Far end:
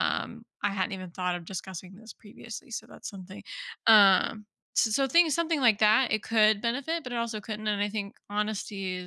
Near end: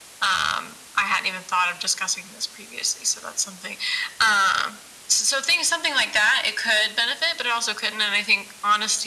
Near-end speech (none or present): none